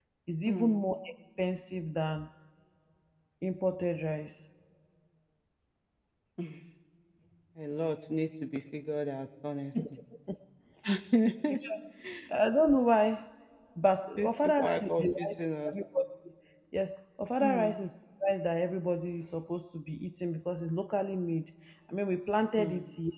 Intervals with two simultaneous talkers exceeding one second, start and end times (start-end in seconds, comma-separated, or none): 14.2-15.7